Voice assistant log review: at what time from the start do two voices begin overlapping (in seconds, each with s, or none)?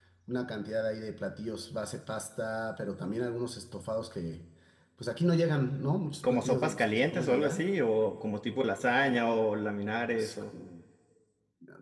6.2 s